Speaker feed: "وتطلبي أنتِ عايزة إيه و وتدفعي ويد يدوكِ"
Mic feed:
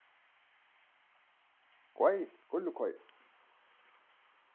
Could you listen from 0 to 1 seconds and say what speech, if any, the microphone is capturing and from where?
neither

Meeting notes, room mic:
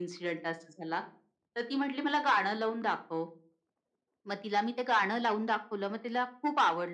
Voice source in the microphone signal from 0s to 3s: echo only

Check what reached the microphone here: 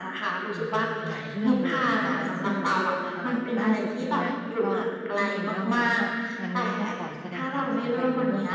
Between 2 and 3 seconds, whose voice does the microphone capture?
both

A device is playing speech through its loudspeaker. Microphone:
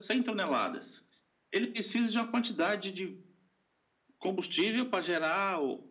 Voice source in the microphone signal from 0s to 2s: echo only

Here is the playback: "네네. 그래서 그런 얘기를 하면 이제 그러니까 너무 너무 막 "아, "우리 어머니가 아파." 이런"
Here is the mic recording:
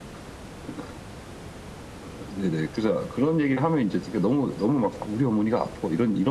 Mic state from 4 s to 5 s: echo only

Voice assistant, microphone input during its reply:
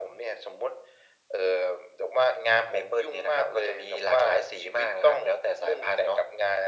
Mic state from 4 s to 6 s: echo only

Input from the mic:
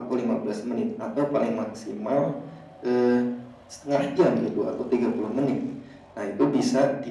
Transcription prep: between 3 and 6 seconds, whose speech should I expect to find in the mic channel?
echo only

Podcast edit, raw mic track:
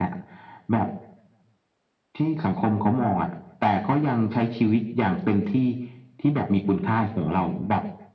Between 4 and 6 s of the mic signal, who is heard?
echo only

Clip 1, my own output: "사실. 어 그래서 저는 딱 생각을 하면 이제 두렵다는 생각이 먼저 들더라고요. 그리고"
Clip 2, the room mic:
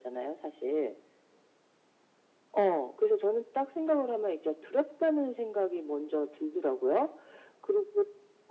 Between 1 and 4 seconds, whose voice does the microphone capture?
echo only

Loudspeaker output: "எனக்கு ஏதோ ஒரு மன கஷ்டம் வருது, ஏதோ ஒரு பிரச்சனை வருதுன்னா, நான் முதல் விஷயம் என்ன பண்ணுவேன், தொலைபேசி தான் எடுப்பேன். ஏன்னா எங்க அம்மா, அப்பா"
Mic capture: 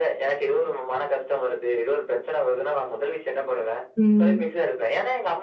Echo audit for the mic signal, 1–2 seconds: echo only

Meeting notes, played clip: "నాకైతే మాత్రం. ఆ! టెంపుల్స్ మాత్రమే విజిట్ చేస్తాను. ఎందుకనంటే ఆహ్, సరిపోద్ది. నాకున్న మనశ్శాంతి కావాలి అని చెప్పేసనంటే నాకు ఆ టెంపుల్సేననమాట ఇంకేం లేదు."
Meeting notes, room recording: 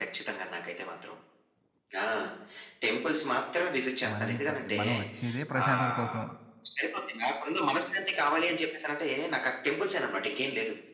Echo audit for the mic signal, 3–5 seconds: both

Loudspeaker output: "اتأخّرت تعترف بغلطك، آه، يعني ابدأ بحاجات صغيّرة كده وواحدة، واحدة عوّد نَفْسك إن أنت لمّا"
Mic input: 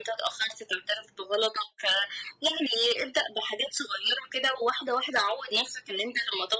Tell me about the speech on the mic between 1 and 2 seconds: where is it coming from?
echo only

